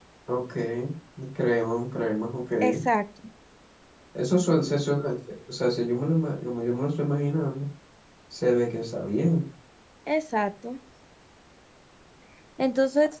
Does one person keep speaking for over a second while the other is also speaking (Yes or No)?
No